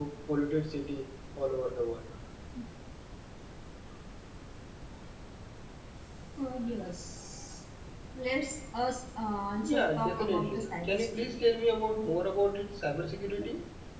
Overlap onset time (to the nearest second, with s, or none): 10 s